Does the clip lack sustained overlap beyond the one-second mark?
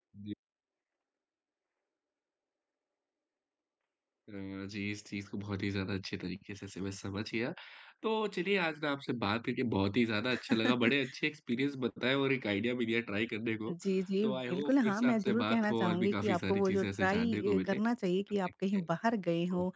No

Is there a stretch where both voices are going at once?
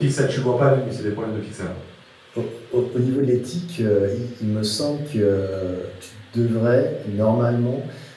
No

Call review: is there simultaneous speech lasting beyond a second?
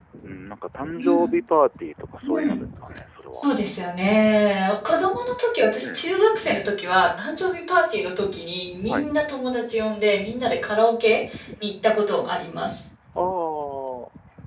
No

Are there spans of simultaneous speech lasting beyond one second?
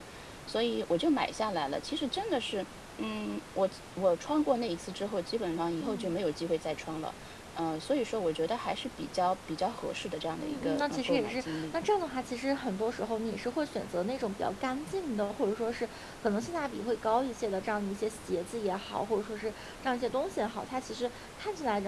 Yes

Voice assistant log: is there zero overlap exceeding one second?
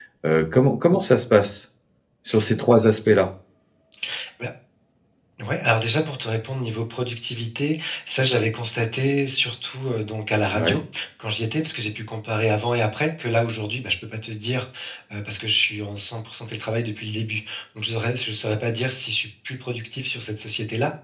Yes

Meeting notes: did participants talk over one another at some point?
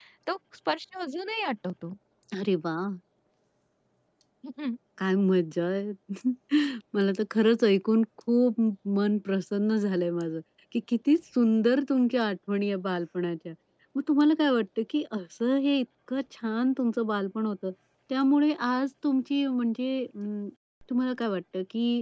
No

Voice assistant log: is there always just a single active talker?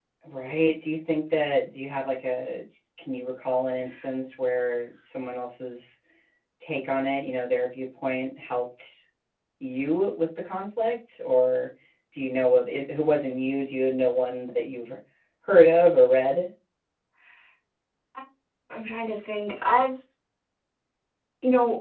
Yes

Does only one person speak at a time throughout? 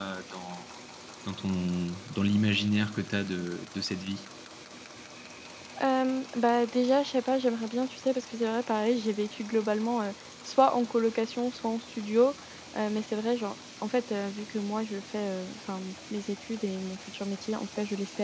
Yes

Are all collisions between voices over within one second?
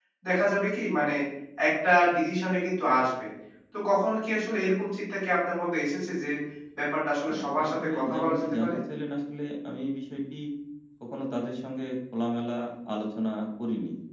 No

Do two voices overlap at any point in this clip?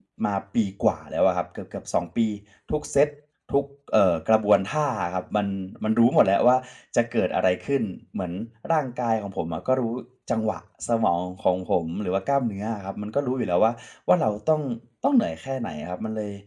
No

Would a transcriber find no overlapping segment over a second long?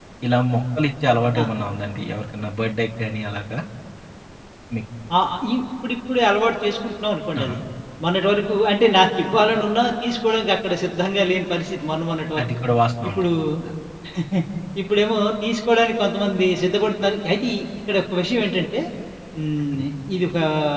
Yes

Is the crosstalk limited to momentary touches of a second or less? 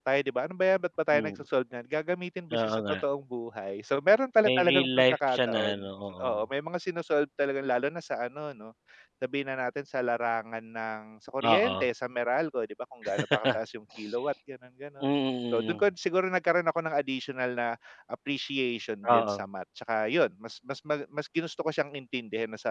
No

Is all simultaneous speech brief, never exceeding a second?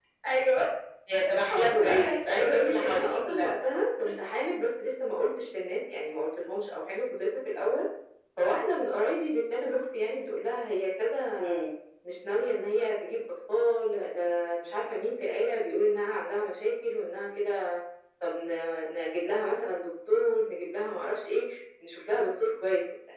No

